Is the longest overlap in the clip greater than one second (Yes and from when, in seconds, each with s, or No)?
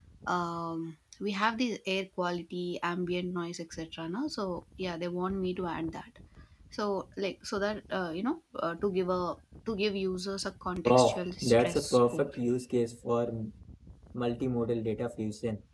Yes, from 10.8 s